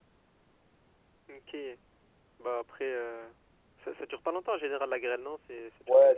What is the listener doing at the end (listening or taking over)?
taking over